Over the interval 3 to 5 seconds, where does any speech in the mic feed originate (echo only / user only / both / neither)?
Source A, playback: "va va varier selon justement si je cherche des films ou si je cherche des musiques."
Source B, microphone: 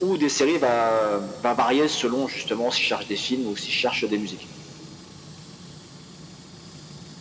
echo only